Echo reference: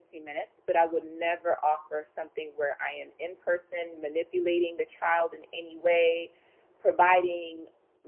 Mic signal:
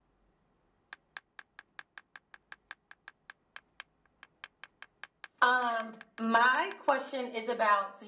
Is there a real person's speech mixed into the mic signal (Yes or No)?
Yes